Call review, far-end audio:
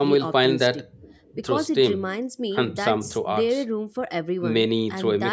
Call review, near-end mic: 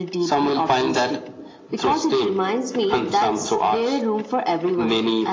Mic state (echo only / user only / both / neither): echo only